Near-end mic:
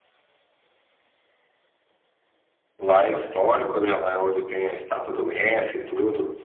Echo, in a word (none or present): none